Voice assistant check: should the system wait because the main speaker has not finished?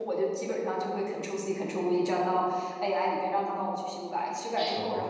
Yes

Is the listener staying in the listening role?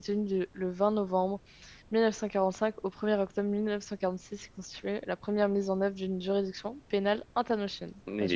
No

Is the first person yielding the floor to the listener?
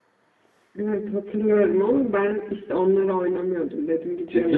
Yes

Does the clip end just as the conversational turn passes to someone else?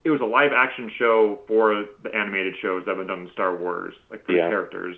No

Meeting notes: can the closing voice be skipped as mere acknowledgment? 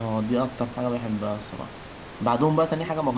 Yes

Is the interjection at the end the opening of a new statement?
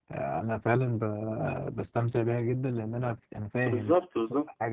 Yes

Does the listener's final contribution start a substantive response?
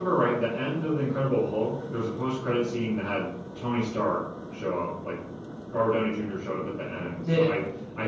No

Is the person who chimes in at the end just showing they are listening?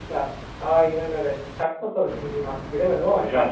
No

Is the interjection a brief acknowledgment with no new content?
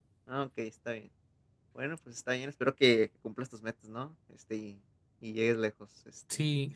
No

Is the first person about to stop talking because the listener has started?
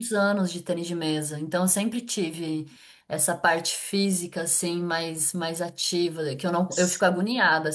No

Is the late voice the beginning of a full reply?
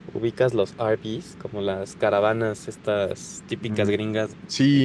Yes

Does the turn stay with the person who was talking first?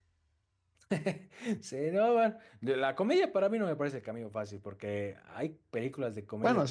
Yes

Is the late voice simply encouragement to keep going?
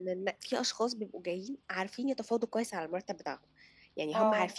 Yes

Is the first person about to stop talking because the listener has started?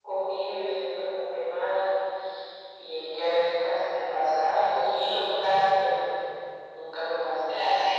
Yes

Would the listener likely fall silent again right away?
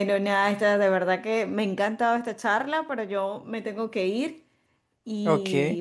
Yes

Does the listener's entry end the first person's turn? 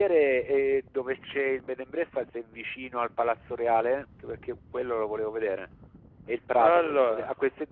No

